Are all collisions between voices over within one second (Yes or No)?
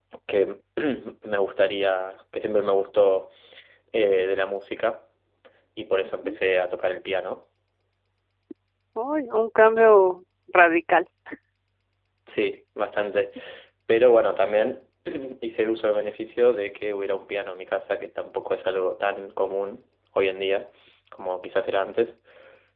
Yes